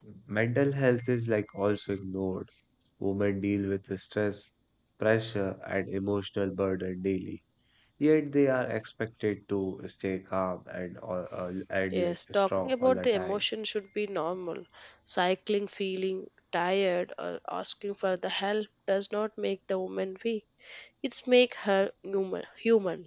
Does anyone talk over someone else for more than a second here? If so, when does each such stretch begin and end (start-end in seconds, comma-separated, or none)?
11.9-13.4